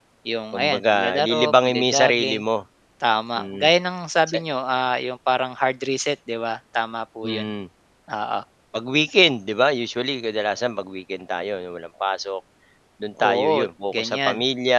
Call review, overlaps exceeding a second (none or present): present